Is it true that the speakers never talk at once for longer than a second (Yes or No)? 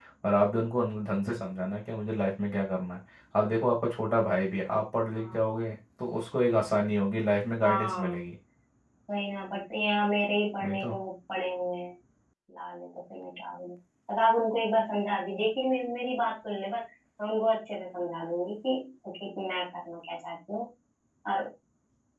Yes